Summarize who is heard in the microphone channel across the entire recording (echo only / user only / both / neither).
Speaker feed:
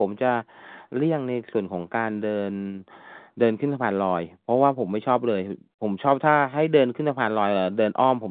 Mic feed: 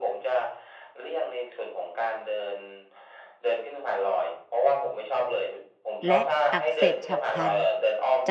both